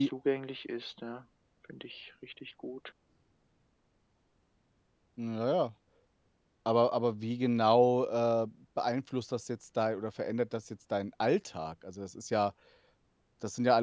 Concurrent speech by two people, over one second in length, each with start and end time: none

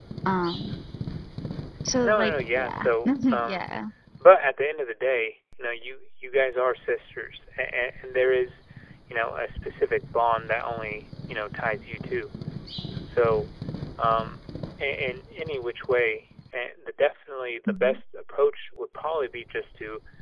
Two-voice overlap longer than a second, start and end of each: 2.0-3.6

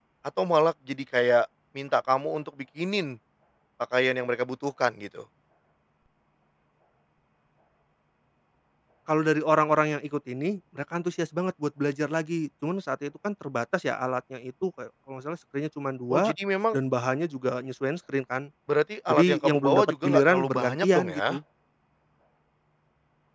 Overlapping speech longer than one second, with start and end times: 19.1-21.2

